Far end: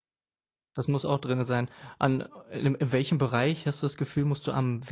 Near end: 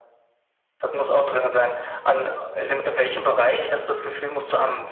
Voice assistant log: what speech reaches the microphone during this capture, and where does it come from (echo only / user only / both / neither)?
echo only